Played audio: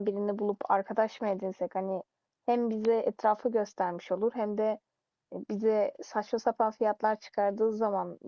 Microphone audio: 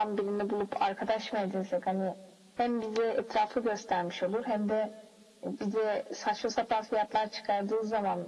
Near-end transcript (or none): none